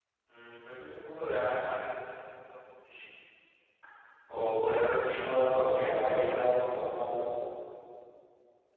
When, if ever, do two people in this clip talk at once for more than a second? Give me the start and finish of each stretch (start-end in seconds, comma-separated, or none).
5.2-6.7